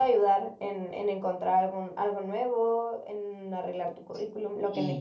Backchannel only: No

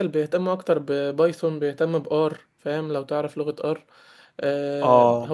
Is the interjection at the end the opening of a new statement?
Yes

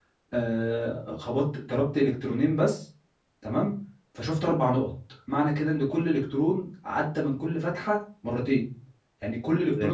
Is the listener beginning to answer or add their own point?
Yes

